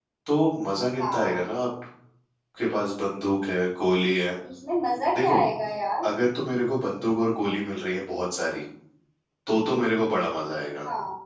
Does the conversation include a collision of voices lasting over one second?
No

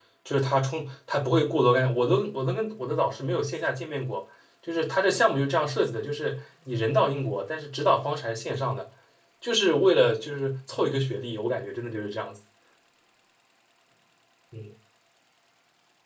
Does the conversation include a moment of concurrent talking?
No

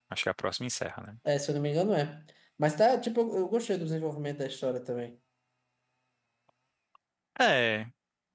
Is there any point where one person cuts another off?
No

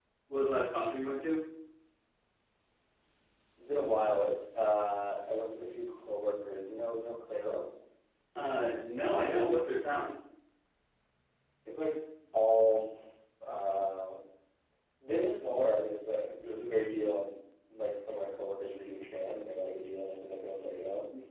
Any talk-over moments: No

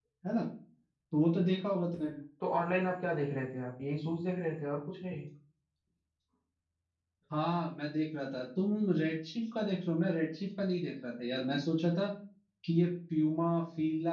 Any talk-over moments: No

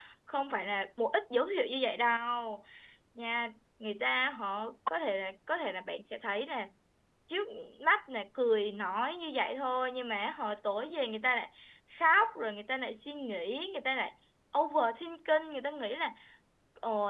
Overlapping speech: No

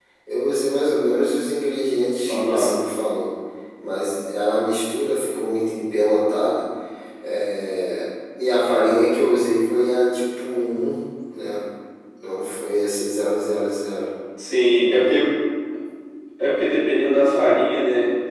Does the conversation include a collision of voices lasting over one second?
No

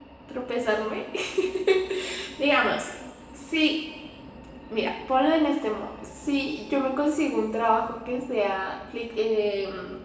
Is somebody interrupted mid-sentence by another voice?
No

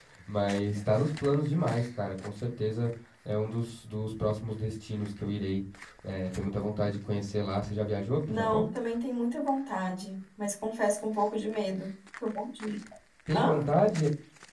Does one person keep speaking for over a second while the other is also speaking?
No

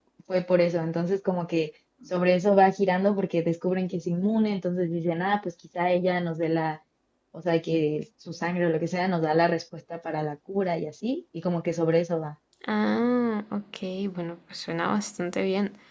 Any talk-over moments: No

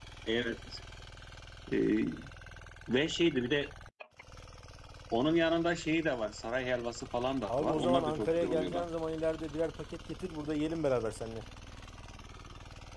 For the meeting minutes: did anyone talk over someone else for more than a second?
Yes, from 7.5 s

